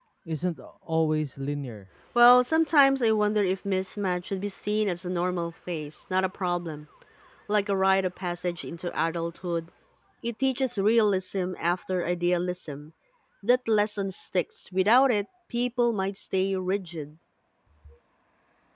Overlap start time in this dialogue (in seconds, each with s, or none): none